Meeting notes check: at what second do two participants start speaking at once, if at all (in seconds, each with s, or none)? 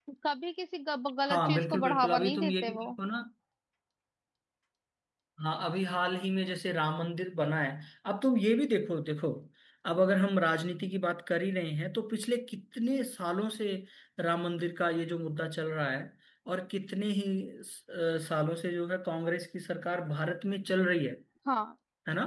1.3 s